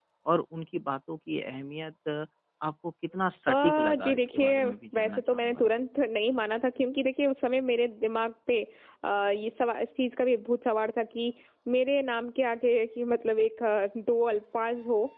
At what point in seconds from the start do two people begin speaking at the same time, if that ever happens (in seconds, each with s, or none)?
3.5 s